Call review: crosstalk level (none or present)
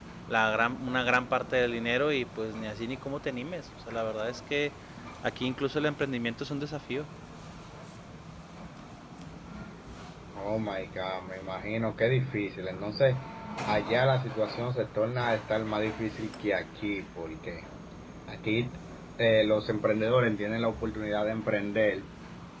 none